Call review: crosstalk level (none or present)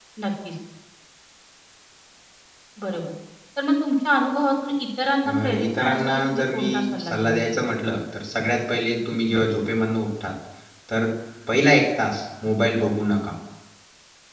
present